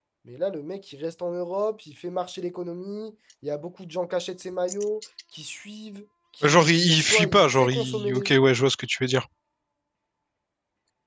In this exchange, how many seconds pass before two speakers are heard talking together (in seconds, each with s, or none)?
6.4 s